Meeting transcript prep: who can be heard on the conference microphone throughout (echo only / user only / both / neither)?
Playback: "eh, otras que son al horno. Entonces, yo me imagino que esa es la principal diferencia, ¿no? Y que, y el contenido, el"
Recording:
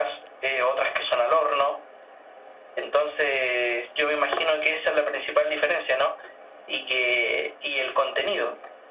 echo only